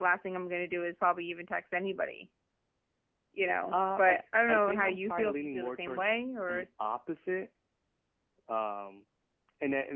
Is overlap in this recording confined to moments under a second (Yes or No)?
No